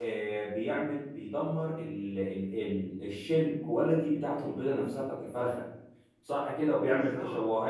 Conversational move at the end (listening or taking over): listening